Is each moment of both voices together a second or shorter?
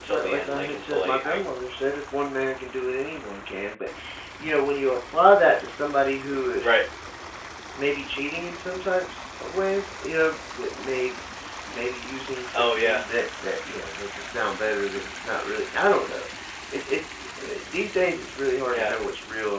No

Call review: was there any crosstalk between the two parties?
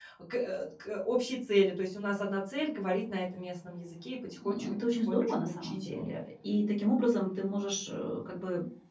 Yes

